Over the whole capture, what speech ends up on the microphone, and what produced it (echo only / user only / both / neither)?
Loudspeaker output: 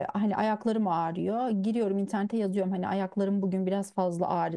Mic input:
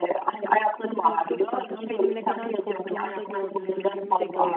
both